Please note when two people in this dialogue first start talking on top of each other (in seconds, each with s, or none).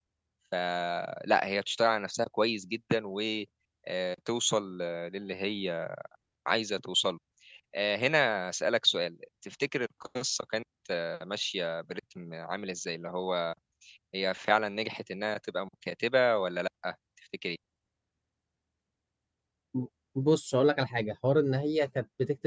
none